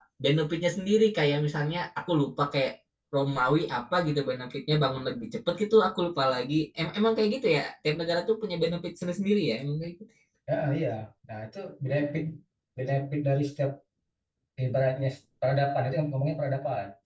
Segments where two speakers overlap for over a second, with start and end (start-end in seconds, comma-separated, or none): none